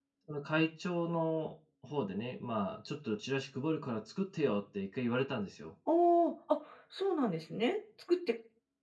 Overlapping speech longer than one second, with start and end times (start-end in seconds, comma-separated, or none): none